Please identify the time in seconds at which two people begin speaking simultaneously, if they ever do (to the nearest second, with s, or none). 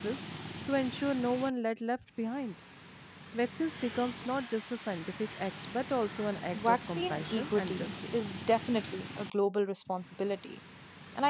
7 s